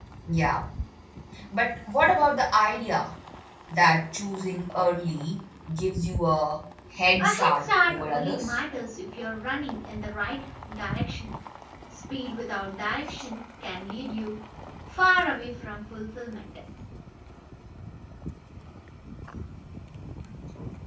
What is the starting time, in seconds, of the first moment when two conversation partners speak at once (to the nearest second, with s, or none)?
7 s